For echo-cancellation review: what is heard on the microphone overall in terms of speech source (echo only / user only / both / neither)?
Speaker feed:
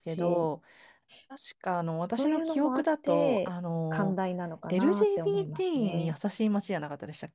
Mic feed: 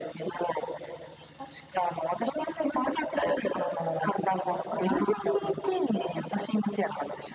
echo only